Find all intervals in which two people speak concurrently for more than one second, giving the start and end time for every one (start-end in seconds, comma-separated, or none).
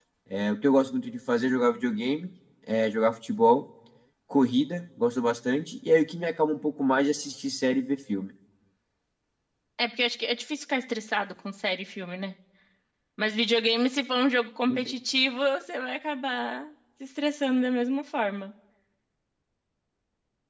none